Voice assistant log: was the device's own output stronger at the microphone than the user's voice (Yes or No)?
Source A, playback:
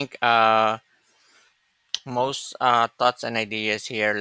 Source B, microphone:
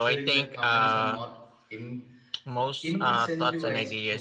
Yes